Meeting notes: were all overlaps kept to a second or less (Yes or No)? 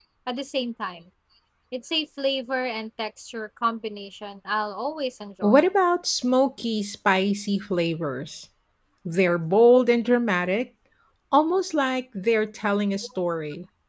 Yes